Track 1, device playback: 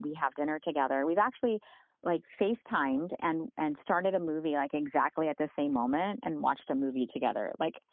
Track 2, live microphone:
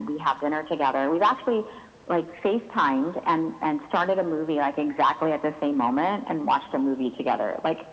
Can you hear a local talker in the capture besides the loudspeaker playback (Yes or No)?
No